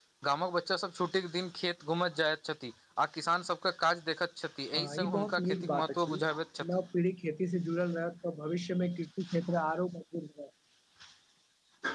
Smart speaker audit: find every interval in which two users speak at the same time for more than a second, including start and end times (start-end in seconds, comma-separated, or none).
4.8-6.1